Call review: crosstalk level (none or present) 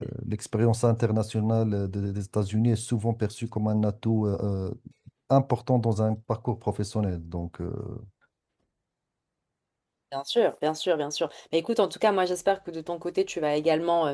none